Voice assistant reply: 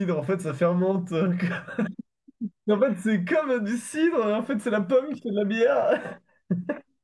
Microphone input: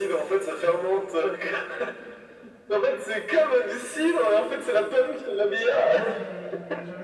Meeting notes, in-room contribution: present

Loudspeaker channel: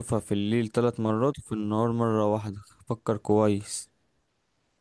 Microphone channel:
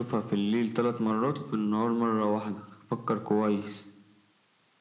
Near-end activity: none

